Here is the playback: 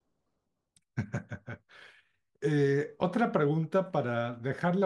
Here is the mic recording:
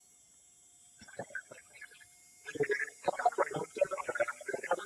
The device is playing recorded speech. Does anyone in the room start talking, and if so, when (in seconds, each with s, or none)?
none